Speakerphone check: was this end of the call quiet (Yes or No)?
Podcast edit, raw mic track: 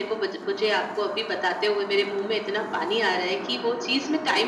Yes